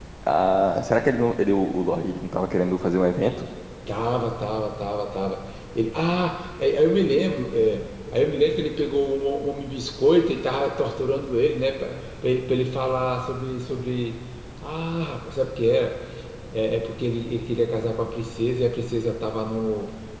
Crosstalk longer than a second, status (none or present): none